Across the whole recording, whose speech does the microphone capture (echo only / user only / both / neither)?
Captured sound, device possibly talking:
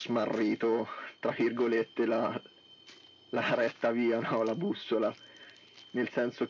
echo only